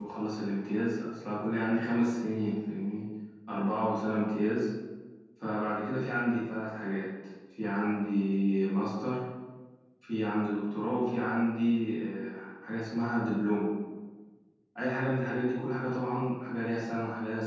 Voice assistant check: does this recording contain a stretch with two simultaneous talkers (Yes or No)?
No